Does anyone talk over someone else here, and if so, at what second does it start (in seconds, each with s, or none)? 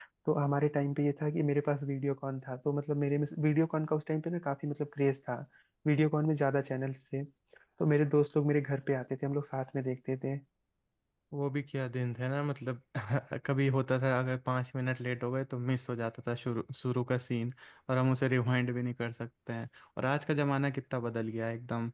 none